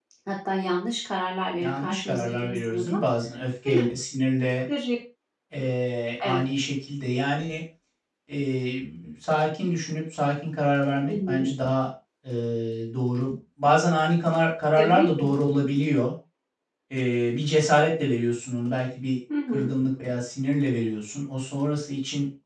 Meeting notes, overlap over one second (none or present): present